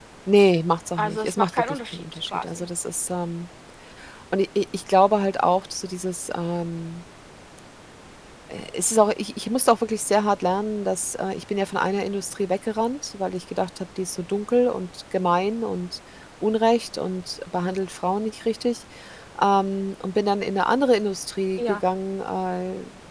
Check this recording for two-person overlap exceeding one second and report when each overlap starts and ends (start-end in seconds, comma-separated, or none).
1.0-2.7